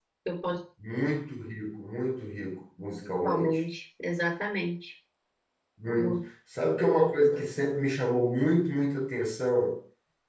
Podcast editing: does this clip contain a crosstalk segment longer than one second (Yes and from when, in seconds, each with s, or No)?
No